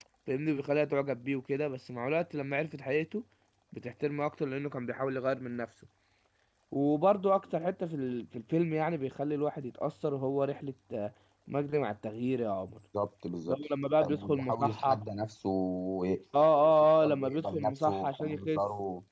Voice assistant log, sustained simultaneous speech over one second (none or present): present